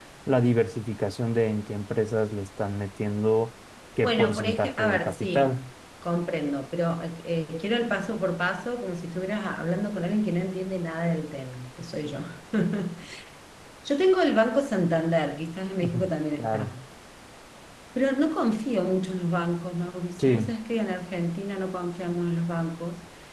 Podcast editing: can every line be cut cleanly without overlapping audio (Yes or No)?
No